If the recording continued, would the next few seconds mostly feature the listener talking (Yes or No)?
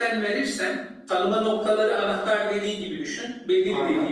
No